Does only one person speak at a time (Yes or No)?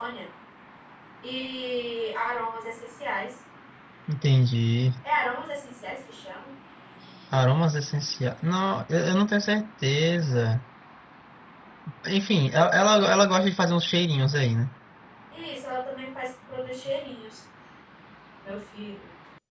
Yes